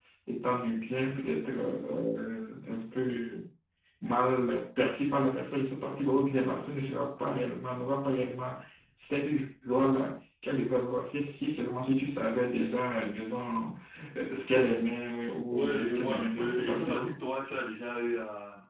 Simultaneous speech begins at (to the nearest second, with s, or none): 16 s